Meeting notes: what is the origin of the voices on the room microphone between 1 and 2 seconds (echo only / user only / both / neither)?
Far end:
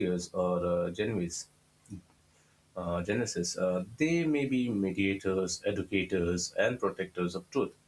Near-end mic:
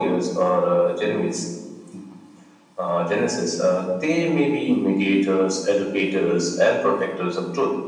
echo only